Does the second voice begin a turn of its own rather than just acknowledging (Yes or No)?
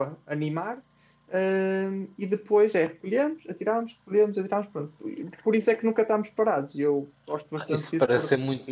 Yes